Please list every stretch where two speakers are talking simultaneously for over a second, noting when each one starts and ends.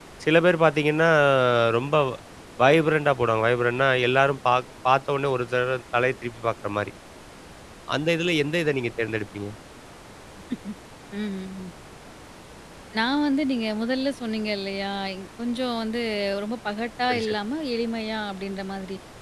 none

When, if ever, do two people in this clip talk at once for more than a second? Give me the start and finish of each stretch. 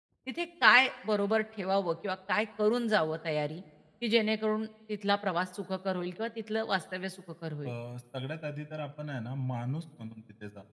none

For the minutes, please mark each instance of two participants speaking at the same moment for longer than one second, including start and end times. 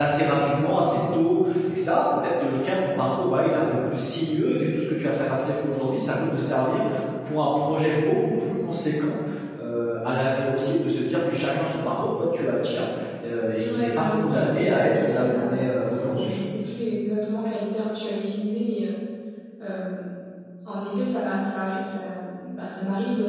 13.6-15.5

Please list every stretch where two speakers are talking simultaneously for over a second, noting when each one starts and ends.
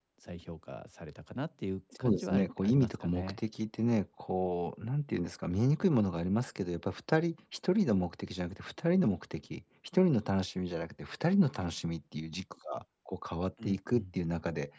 2.0-3.4

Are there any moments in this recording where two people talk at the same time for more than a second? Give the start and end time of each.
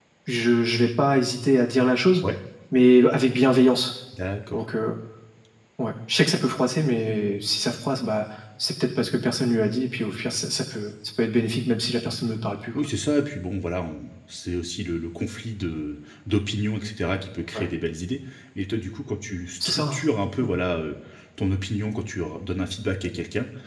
none

